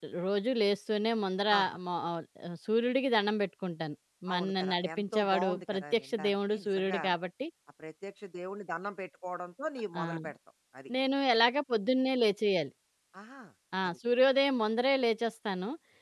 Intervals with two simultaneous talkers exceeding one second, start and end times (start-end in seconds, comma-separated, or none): 4.3-7.0